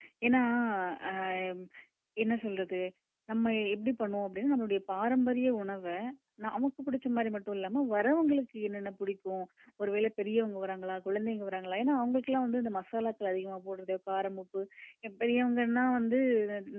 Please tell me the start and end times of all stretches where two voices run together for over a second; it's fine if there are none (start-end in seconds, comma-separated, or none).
none